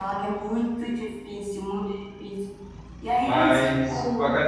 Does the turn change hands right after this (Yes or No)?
Yes